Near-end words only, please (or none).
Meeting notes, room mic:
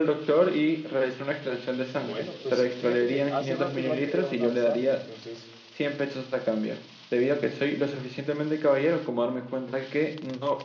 bueno, pues fíjate que hace rato igual quería donar sangre, entonces,